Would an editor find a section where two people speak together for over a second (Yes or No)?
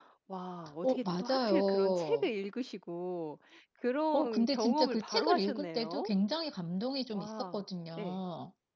Yes